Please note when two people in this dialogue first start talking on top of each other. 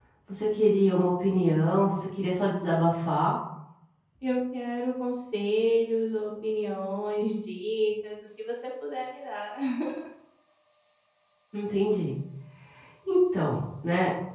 none

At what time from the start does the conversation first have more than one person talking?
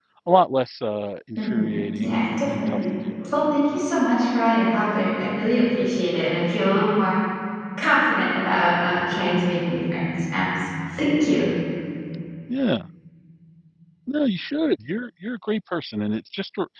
1.4 s

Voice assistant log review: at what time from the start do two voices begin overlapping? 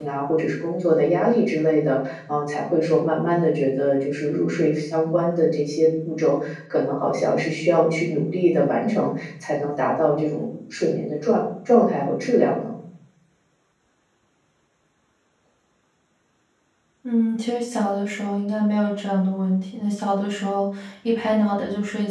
none

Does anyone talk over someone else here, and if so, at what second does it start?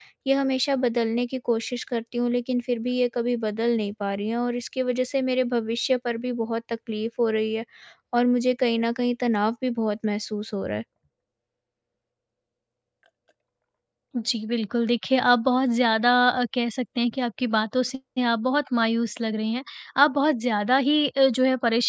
none

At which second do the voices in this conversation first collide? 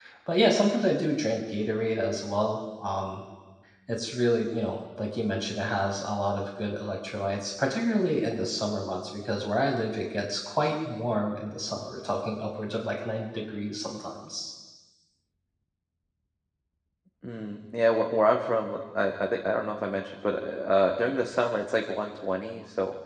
none

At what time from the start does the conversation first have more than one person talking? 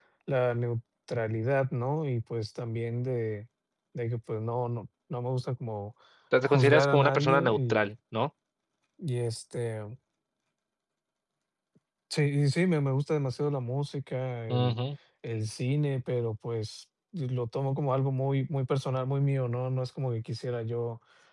6.4 s

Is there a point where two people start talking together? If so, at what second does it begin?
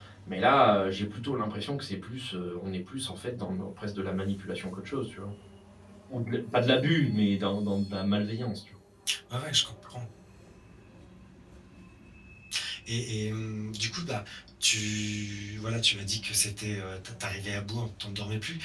none

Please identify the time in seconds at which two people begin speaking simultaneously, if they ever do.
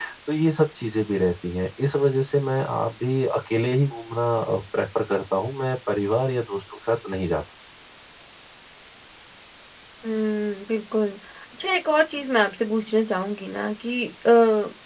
none

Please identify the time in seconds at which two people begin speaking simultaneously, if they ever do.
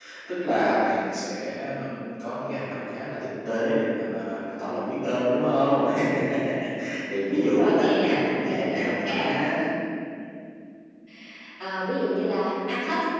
7.3 s

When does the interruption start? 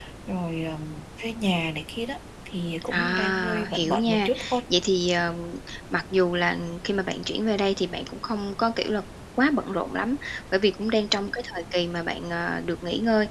2.9 s

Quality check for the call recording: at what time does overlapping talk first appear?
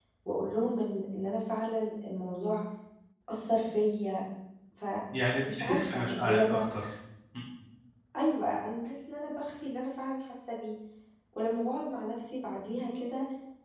5.4 s

